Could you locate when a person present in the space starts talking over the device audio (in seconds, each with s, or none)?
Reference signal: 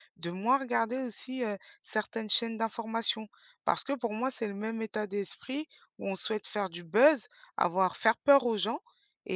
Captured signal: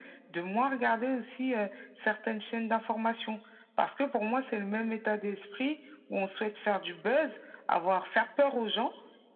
none